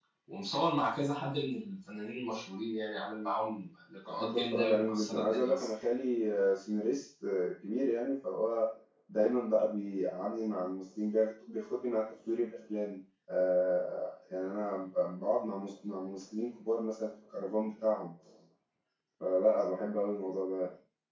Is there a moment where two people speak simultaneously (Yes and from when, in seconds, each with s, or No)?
Yes, from 4.1 s